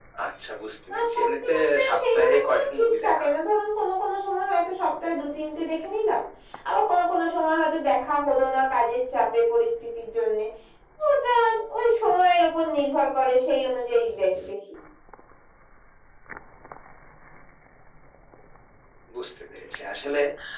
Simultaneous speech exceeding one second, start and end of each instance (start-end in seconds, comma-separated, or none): 0.9-3.4